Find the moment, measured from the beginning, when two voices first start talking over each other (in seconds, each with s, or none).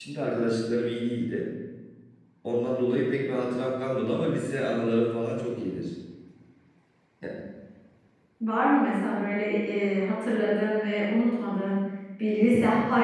none